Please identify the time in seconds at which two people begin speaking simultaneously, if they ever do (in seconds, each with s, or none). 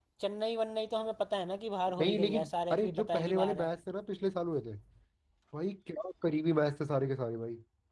1.9 s